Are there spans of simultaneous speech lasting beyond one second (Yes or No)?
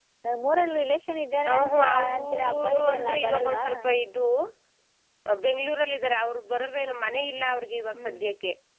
Yes